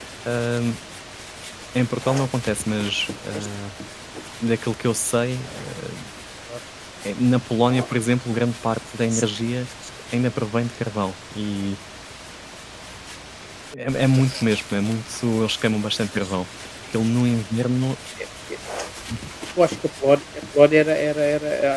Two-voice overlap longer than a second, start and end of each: none

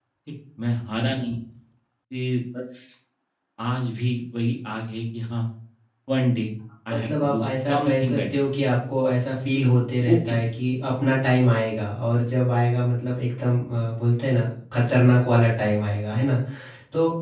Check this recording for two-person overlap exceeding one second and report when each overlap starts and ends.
6.9-8.2

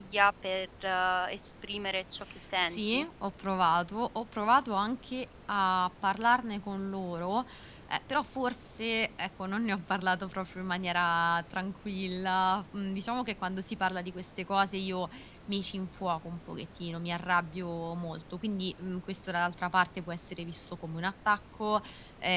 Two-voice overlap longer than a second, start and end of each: none

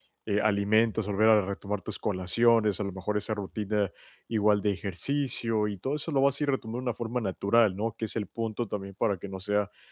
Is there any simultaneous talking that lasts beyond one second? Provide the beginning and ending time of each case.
none

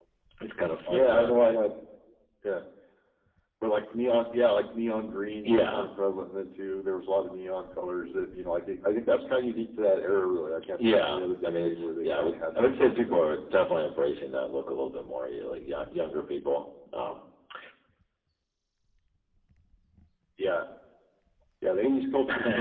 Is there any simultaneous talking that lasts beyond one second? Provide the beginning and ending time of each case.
11.0-13.2

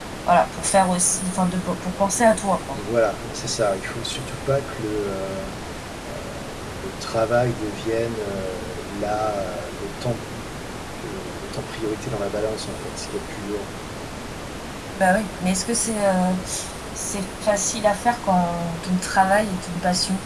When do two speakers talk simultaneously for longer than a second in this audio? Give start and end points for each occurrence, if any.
none

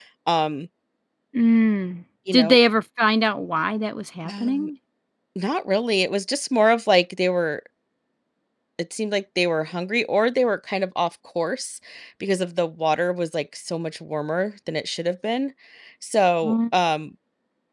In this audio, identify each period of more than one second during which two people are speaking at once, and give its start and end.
none

